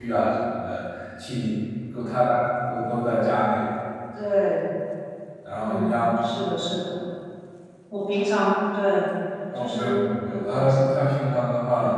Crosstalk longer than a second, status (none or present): present